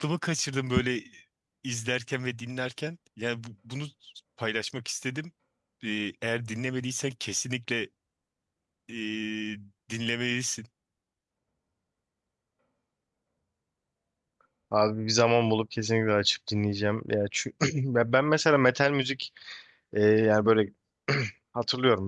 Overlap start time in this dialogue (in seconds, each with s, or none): none